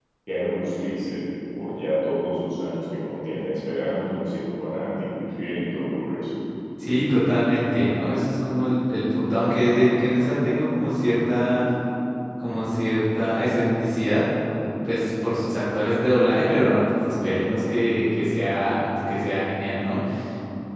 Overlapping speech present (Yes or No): No